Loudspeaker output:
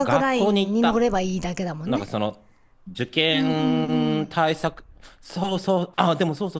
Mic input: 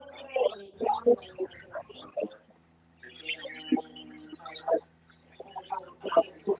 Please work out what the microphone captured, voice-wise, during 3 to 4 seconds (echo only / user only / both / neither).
echo only